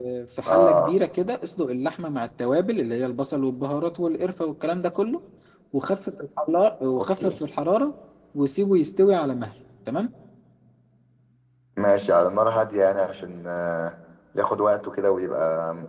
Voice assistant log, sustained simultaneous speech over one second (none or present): none